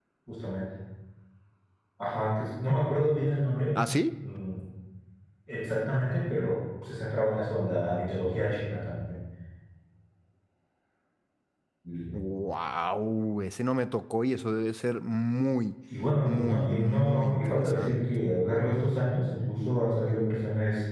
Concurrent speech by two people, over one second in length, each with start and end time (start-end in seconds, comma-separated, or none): 16.2-18.2